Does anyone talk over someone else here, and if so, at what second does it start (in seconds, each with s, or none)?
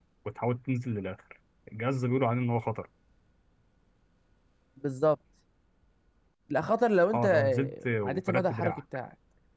7.1 s